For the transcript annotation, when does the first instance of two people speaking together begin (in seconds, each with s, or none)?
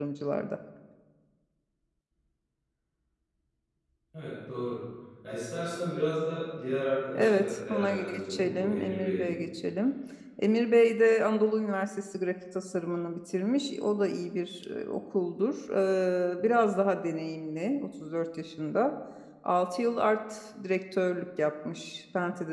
7.1 s